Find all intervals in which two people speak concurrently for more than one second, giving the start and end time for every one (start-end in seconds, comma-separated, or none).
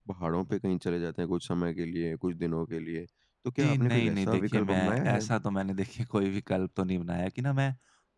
3.6-5.2